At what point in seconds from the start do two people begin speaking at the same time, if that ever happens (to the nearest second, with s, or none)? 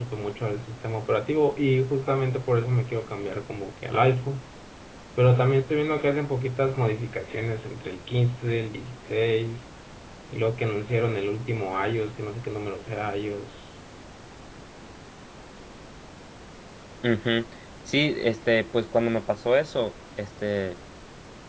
none